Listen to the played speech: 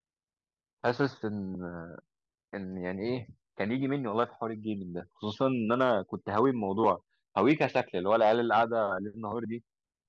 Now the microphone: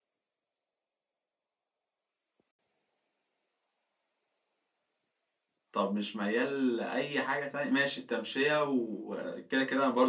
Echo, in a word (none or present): none